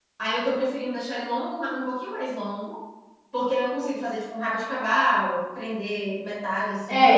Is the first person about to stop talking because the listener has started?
Yes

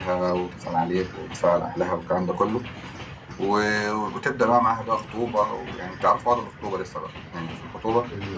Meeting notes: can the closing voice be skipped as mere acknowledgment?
No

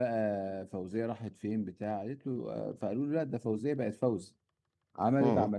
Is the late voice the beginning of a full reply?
No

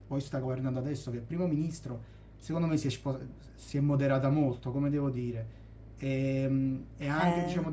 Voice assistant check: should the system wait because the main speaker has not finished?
Yes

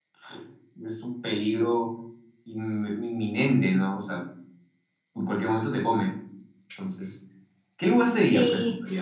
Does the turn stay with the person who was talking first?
No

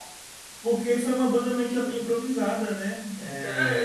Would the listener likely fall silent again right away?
No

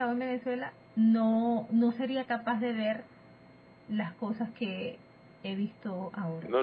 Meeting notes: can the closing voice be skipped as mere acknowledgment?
No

